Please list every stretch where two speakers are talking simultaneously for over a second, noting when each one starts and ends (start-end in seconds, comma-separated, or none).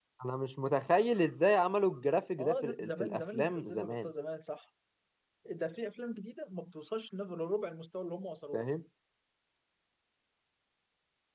2.4-4.1